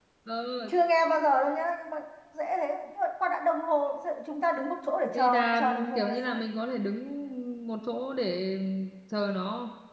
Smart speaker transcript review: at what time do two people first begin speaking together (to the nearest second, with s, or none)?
5 s